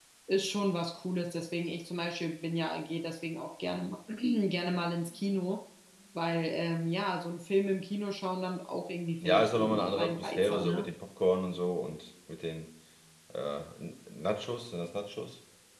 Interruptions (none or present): present